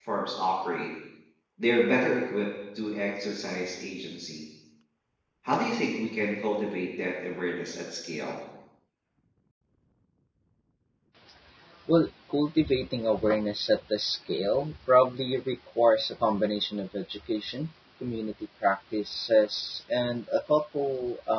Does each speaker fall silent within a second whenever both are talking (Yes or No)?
Yes